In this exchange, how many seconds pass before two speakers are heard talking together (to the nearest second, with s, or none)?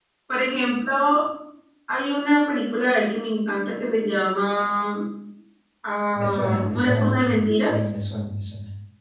6 s